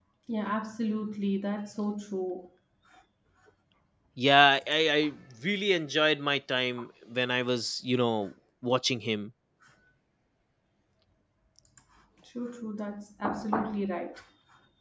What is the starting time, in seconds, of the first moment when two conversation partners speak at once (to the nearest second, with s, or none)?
none